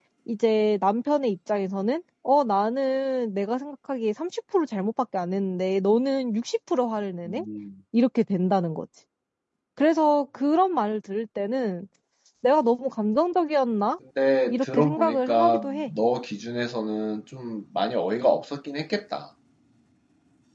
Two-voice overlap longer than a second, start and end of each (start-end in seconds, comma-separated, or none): 14.5-15.9